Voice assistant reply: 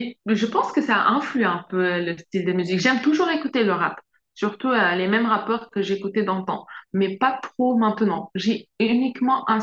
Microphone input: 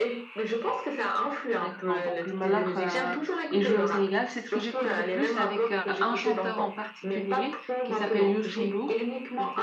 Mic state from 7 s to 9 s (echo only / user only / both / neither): both